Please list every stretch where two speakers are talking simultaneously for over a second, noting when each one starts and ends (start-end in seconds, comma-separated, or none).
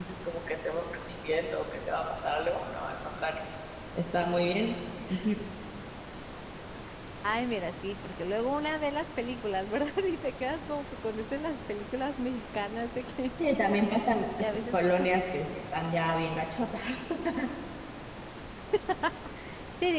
none